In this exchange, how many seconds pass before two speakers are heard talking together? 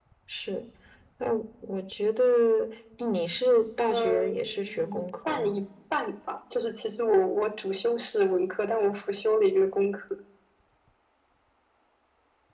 4 s

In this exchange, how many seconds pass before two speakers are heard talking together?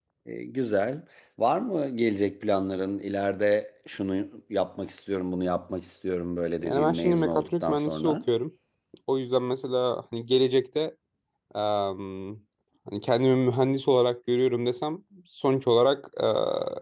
7 s

